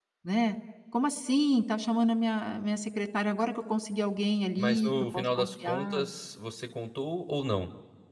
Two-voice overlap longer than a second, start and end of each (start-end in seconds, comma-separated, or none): 4.6-6.0